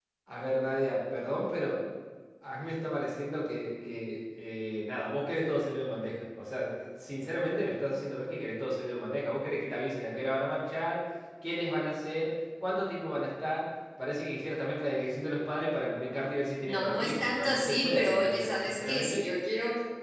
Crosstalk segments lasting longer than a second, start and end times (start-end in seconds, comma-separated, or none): 16.7-19.2